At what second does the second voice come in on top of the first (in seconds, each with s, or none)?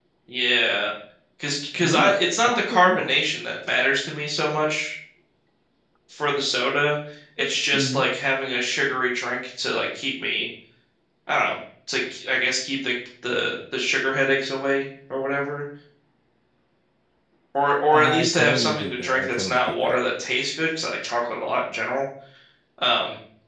1.8 s